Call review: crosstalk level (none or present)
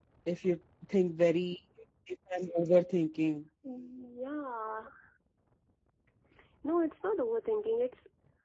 none